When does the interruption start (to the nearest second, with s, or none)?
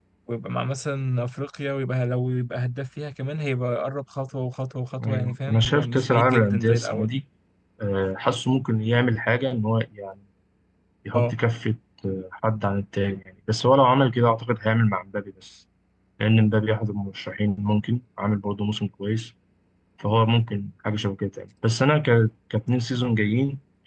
5 s